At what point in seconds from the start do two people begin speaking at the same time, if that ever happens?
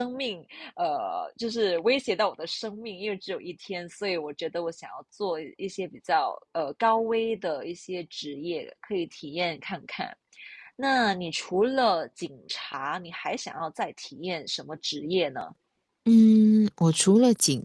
none

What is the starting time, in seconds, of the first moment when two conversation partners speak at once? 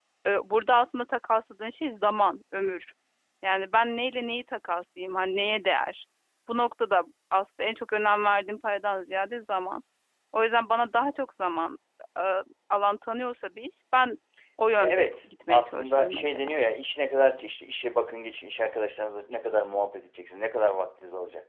14.8 s

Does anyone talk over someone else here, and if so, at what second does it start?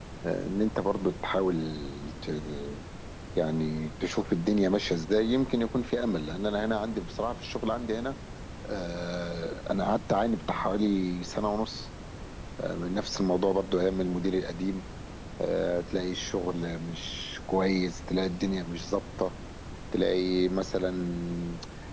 none

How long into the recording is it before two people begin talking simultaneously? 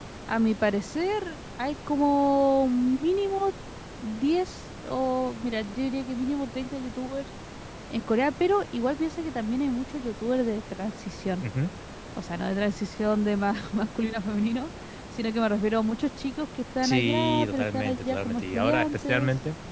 16.8 s

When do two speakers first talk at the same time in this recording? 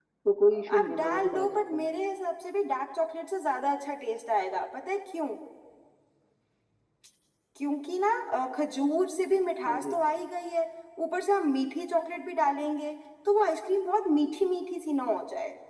0.5 s

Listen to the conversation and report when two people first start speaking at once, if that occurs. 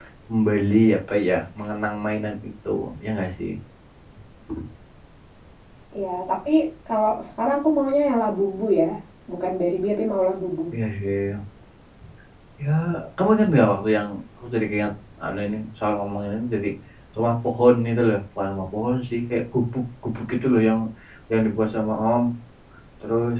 none

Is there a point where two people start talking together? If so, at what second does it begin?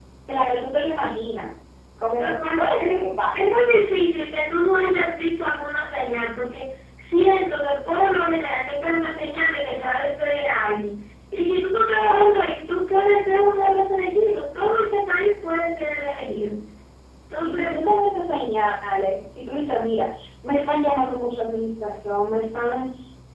2.2 s

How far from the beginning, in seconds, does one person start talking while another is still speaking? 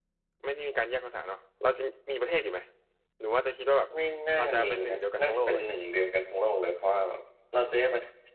4.4 s

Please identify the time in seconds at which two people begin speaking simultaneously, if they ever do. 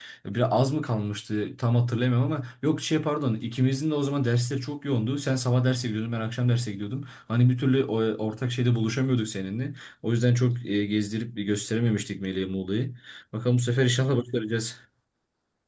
none

